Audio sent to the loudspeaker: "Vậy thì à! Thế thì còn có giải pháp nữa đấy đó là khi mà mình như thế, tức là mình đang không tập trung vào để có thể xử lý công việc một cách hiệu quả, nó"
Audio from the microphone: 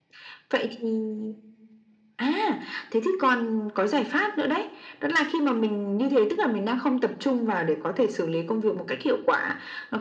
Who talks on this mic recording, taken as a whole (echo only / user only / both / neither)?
echo only